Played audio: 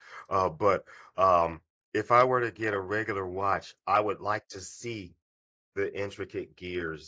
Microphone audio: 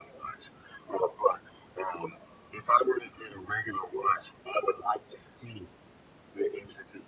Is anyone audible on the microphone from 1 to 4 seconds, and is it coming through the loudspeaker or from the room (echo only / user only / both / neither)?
echo only